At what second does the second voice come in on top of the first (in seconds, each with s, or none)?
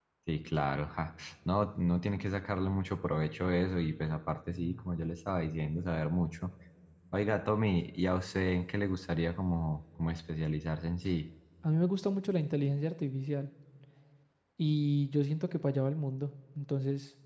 none